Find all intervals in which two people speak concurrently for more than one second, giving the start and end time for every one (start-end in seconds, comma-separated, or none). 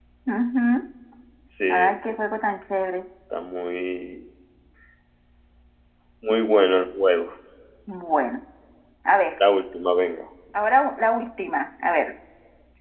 none